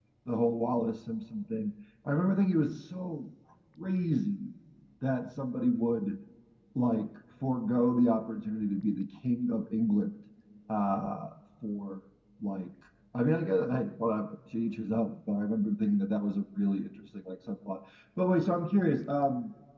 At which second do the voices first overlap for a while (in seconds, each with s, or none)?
none